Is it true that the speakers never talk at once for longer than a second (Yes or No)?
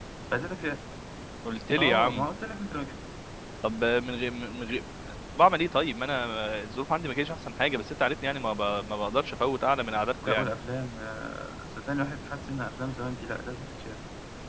Yes